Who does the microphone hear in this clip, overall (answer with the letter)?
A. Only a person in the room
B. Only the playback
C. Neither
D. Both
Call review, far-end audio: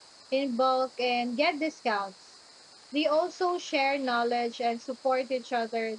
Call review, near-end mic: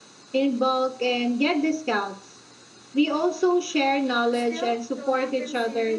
D